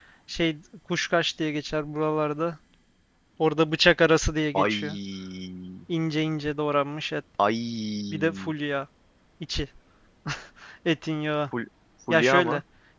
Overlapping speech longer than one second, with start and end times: none

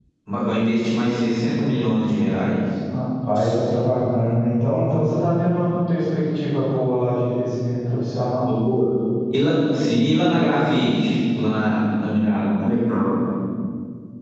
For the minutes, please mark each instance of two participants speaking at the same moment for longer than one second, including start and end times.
none

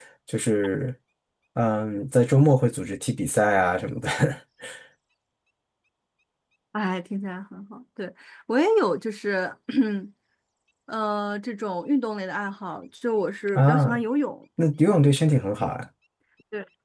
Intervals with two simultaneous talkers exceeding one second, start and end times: none

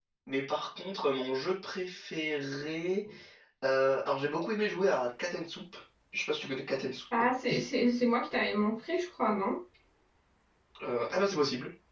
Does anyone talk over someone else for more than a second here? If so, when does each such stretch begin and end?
none

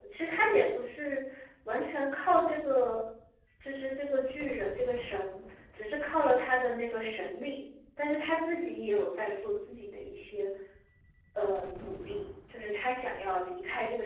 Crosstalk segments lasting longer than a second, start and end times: none

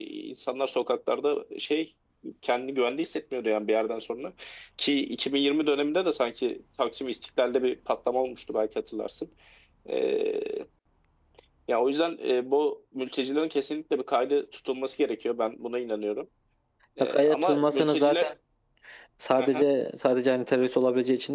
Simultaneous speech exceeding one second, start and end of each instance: 17.0-18.3

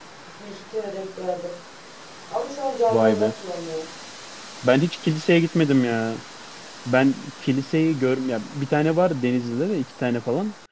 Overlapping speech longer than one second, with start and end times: none

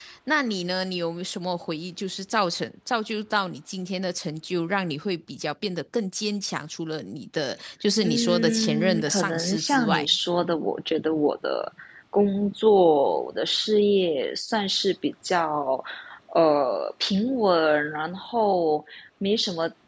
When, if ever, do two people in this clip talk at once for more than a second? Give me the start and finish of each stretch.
8.0-10.1

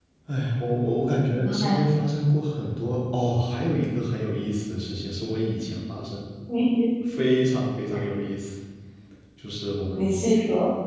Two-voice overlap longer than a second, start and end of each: none

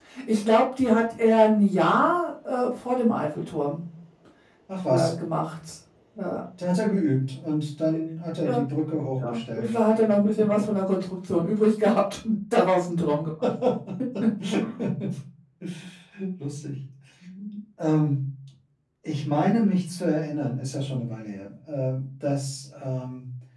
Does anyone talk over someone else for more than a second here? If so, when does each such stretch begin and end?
none

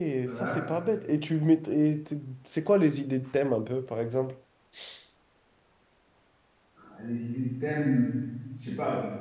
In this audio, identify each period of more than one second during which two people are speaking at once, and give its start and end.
none

